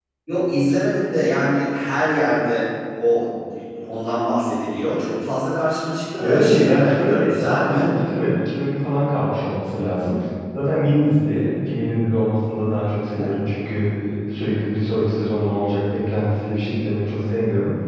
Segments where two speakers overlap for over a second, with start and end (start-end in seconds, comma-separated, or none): 6.2-7.9